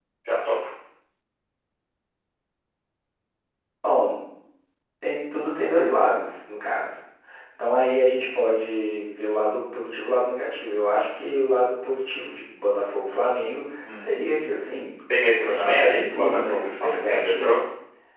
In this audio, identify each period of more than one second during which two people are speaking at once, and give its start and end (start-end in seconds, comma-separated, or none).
15.4-17.5